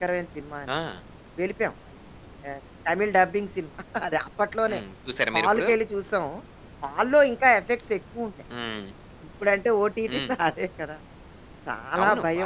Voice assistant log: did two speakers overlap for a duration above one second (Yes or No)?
No